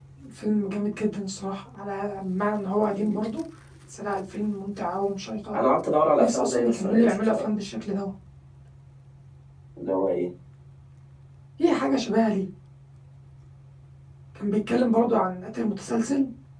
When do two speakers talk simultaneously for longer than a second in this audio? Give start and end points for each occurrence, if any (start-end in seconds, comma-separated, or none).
6.2-7.5